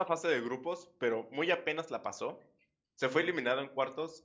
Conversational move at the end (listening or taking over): listening